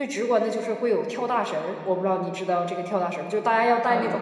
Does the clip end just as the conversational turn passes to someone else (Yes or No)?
No